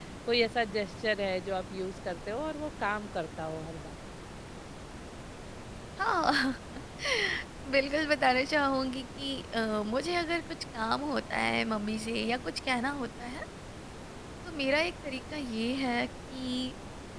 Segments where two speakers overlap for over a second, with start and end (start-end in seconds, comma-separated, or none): none